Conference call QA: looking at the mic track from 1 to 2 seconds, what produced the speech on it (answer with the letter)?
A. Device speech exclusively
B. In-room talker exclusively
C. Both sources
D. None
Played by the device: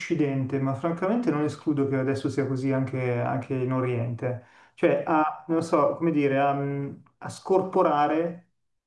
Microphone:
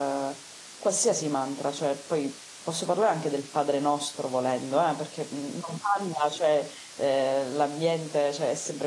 B